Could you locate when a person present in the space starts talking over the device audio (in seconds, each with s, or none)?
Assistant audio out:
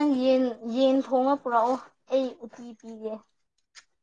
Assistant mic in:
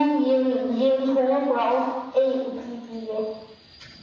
none